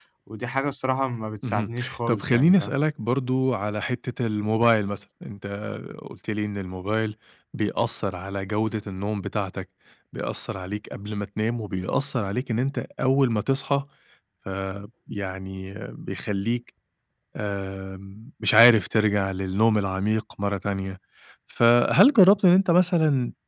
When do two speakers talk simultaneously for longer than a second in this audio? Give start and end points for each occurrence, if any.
1.4-2.8

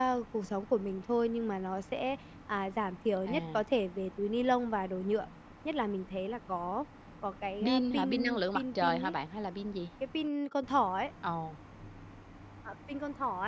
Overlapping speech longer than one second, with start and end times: 7.6-9.1

